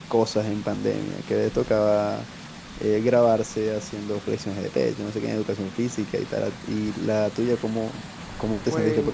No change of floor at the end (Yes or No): Yes